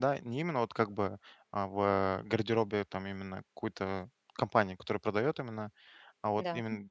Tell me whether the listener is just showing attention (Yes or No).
Yes